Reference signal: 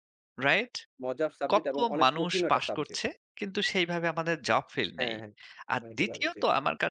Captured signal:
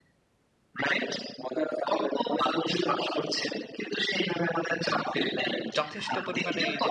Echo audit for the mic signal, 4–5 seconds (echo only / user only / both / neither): echo only